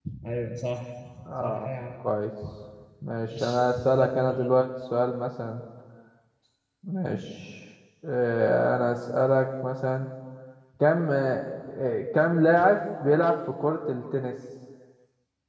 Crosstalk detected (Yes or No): Yes